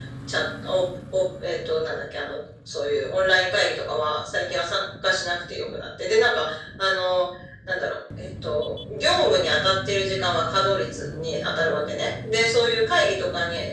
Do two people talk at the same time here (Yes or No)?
No